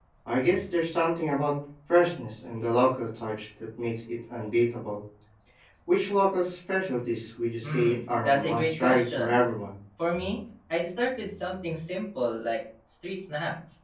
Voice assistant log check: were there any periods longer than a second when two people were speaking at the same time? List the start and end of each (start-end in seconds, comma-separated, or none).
7.6-9.4